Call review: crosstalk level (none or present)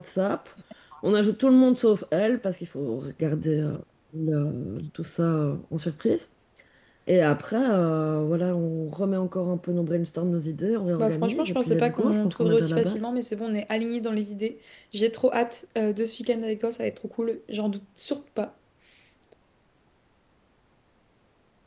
present